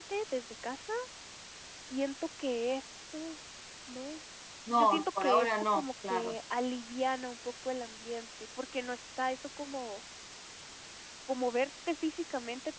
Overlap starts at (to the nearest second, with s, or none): 5 s